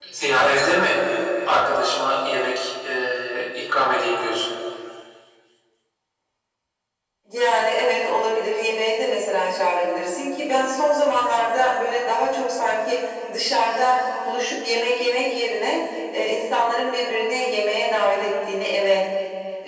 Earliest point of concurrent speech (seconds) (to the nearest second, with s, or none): none